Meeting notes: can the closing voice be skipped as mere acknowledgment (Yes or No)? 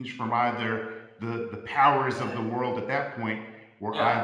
Yes